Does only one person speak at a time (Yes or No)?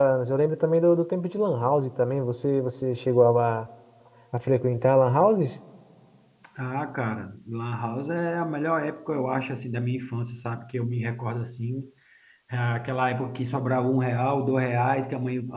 Yes